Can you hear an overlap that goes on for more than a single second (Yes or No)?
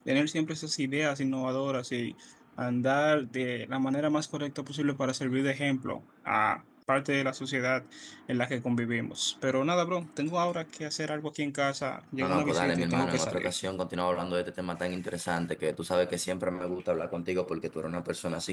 Yes